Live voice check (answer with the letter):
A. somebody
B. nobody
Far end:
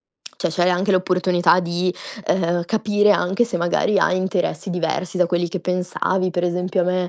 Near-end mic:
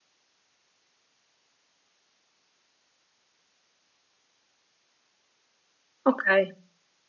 A